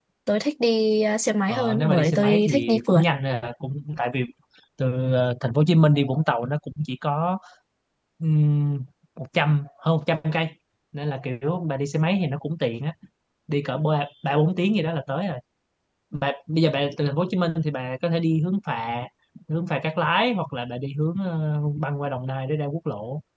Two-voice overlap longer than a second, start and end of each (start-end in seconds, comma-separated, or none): 1.5-3.0